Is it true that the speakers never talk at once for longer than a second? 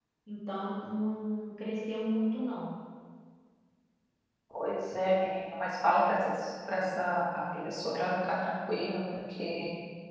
Yes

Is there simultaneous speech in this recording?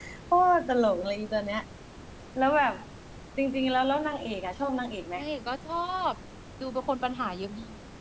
No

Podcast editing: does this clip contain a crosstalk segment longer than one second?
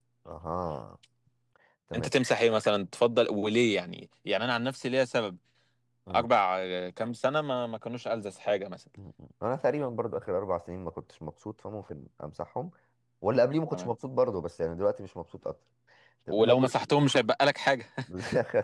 No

